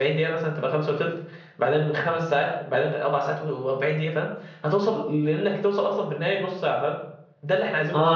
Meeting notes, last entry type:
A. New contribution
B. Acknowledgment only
A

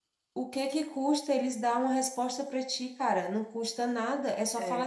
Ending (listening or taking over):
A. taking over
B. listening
B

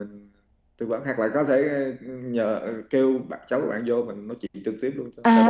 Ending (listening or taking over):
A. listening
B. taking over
B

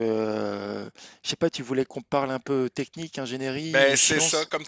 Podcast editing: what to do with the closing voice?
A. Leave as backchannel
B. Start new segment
B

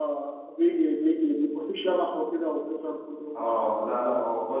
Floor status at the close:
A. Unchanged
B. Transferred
B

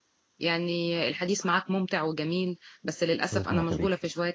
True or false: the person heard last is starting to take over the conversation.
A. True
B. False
B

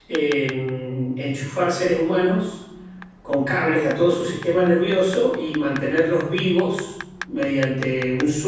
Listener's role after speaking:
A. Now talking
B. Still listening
B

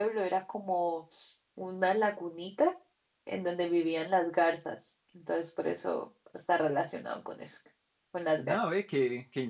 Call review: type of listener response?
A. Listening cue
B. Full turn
B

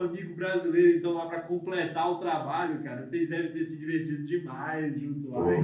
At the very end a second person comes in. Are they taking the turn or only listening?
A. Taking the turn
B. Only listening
A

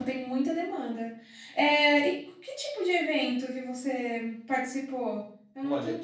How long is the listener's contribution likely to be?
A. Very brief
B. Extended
B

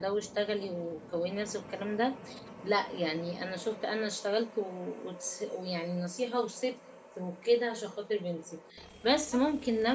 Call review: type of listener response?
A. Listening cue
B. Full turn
A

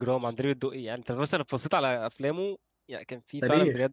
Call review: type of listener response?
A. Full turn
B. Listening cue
A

